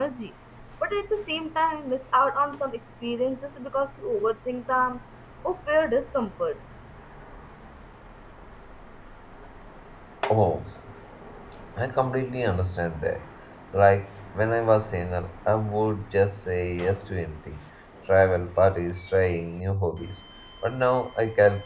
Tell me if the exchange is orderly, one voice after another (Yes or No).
Yes